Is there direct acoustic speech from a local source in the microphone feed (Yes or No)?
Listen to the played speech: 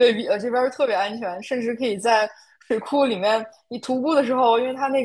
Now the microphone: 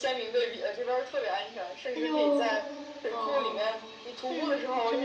Yes